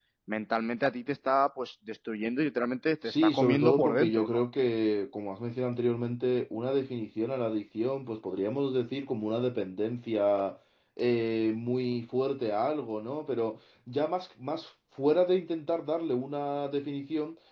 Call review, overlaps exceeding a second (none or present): present